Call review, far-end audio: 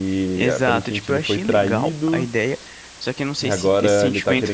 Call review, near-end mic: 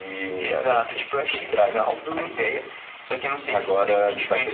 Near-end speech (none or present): none